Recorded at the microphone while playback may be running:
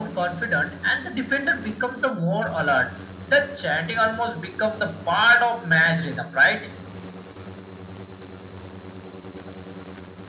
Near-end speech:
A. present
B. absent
B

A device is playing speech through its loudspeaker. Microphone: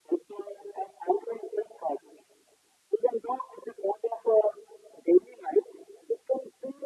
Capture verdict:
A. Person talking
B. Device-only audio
B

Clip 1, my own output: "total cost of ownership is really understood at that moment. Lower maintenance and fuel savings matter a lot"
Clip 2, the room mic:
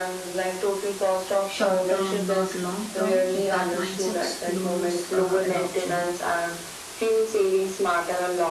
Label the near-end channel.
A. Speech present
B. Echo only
A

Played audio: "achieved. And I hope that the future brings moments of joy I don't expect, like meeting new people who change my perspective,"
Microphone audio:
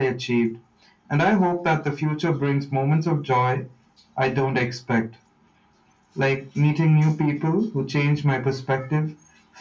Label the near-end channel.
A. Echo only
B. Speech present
A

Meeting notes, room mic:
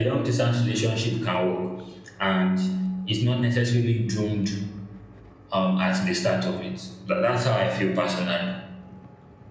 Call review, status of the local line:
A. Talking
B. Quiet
B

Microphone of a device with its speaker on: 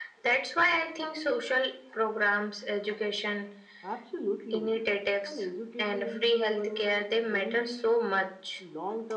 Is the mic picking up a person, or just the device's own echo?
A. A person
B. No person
B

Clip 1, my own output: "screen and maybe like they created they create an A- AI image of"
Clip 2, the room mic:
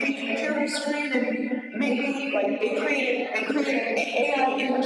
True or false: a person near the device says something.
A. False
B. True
A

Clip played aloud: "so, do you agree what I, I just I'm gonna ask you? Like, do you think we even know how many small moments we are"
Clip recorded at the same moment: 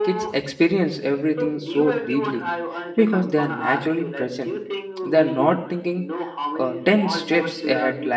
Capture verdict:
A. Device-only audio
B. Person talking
B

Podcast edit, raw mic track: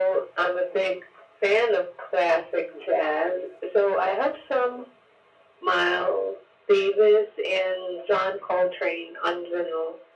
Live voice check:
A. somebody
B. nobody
B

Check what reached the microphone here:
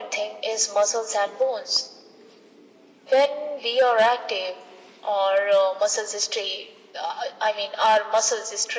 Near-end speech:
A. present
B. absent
B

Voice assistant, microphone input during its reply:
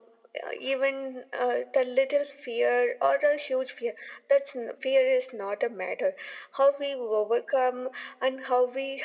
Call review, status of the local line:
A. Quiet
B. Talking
A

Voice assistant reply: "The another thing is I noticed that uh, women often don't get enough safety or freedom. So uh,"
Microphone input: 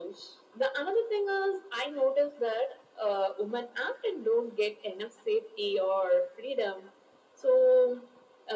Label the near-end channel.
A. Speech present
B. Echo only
B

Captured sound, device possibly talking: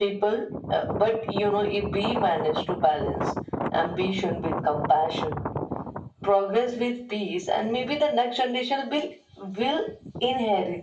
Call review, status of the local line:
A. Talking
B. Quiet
B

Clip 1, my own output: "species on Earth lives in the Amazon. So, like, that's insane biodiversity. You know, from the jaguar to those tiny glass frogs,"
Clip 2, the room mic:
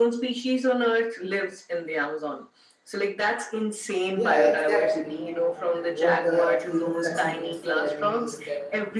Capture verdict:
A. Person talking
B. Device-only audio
A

